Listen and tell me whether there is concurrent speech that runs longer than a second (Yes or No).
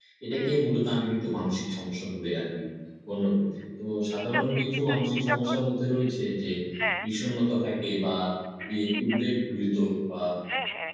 Yes